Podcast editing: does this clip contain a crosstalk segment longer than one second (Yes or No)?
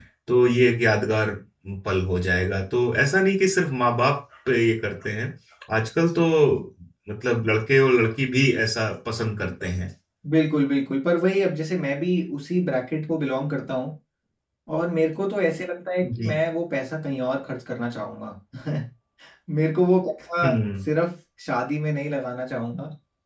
No